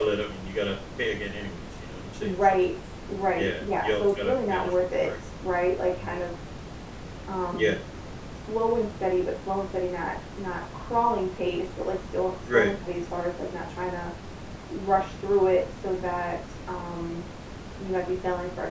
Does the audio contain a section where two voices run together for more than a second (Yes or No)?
Yes